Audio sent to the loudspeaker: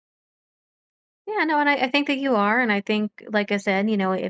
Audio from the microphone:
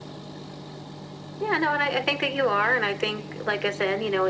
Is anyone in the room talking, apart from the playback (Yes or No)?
No